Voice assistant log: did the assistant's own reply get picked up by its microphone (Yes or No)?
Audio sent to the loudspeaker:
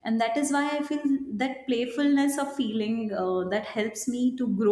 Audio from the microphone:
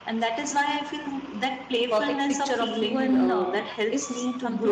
Yes